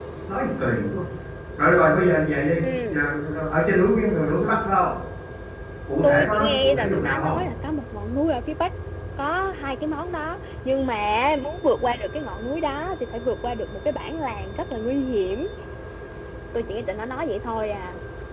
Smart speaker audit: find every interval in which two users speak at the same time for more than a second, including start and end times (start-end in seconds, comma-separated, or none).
6.0-7.4